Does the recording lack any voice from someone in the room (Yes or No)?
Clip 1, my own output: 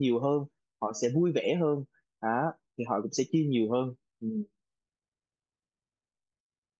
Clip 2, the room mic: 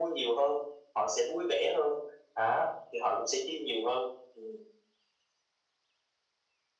Yes